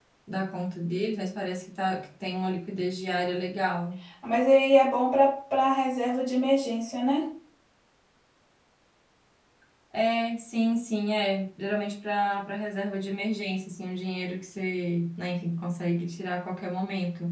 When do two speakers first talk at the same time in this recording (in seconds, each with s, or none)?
none